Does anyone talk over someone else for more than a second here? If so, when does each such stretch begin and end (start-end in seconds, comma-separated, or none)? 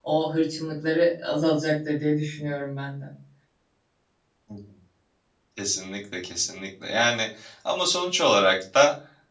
none